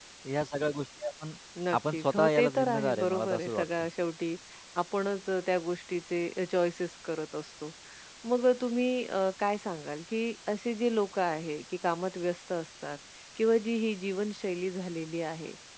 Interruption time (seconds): 1.9 s

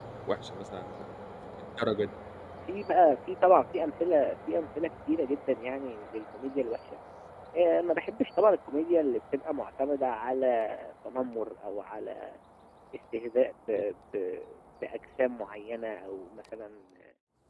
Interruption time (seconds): none

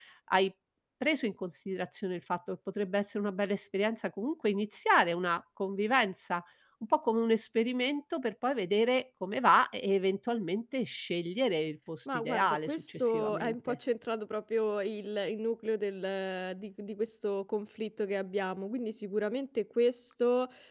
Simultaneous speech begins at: 12.1 s

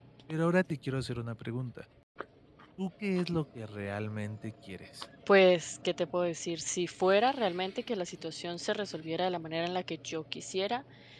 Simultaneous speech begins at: none

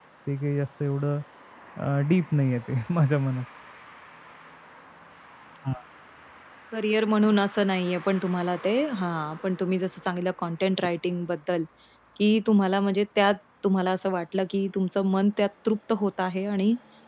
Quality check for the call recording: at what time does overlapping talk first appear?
none

